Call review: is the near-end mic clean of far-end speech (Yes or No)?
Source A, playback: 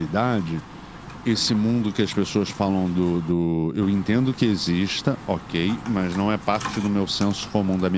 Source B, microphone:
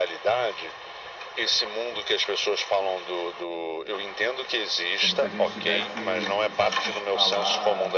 No